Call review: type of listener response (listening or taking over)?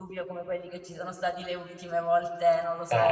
listening